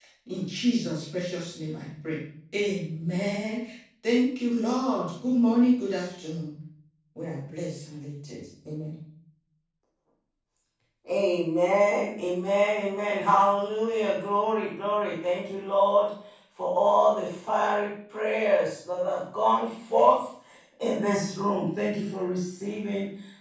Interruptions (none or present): none